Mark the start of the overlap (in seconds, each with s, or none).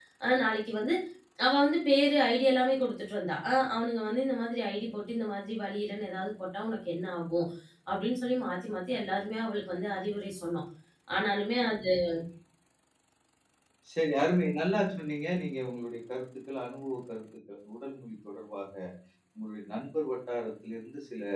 none